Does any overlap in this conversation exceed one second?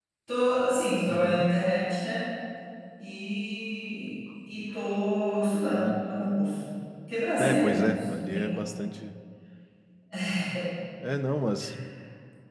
Yes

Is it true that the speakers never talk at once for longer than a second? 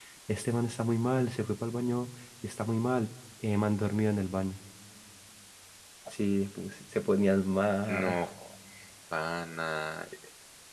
Yes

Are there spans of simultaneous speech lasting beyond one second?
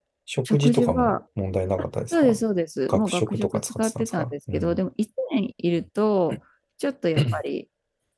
Yes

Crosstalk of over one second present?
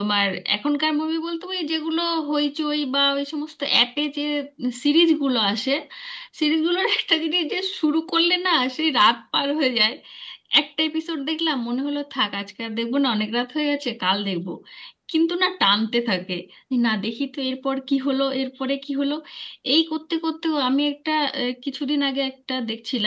No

